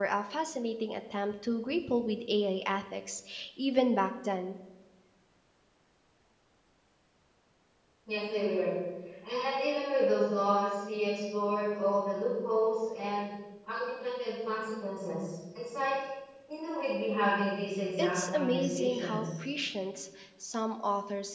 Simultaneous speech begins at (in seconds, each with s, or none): 18.0 s